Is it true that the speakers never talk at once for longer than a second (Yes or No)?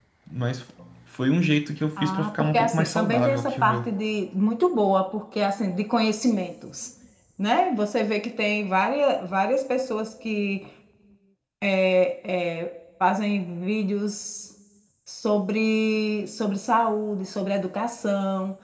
No